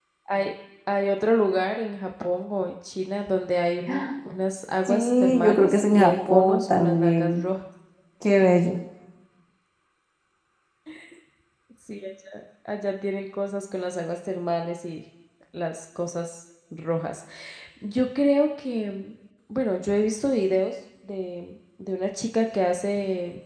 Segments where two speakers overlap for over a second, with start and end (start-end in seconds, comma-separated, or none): 4.8-7.4